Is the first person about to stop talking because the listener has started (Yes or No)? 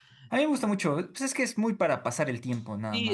Yes